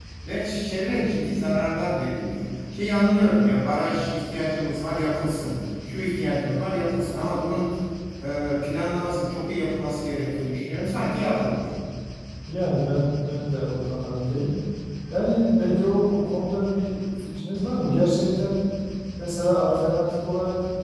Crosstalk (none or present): none